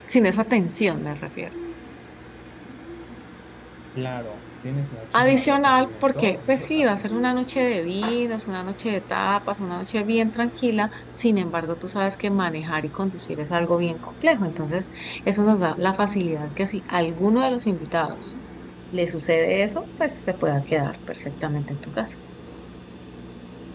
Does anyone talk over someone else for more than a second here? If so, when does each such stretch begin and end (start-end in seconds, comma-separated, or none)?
5.1-7.0